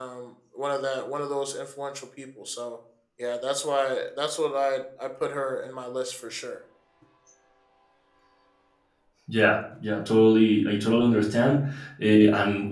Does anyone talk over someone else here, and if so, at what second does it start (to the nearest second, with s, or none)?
none